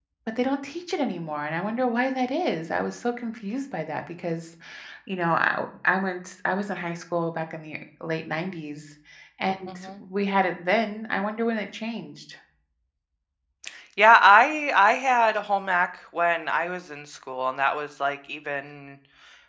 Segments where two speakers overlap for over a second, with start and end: none

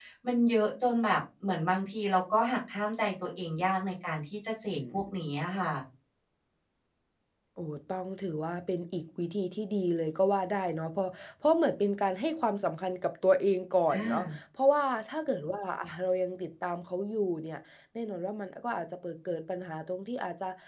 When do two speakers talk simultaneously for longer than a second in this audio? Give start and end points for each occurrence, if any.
none

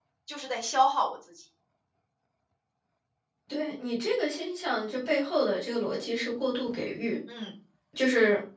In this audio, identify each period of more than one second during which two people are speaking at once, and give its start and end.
none

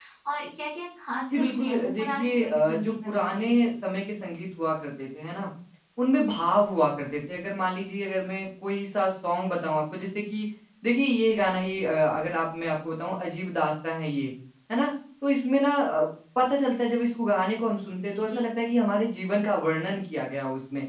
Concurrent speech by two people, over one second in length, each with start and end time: 1.3-3.5

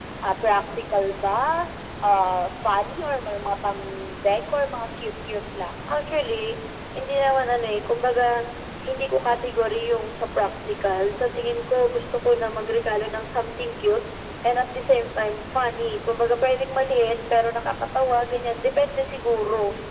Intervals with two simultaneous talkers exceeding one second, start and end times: none

